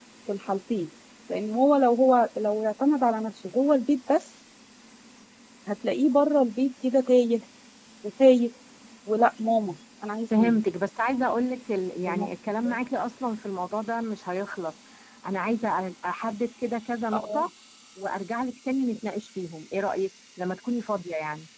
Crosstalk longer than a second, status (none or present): none